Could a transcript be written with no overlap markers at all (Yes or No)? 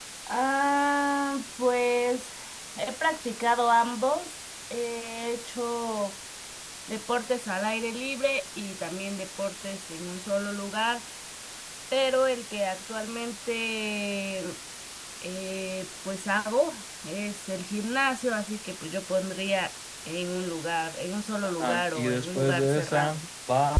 No